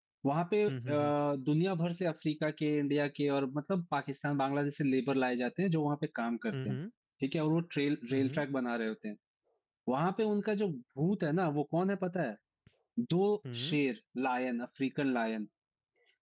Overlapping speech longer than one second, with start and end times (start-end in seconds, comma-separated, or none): none